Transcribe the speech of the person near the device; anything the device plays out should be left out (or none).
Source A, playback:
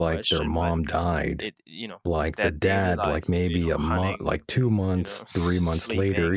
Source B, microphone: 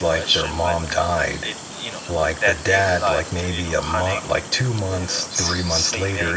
none